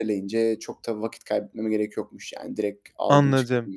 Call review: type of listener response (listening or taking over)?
taking over